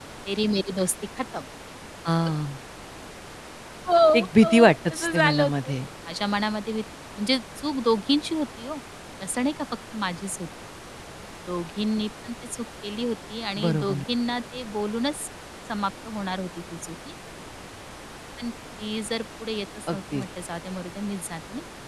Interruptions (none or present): present